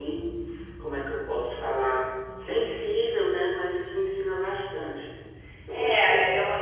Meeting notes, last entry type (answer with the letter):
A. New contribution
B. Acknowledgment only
A